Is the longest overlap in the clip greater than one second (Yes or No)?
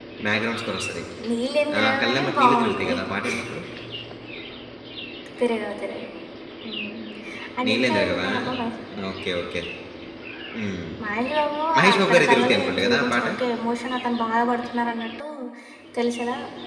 Yes